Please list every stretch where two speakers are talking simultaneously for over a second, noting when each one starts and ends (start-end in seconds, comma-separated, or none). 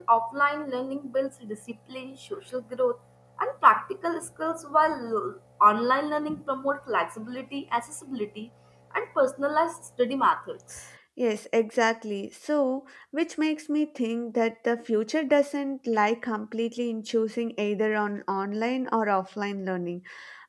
none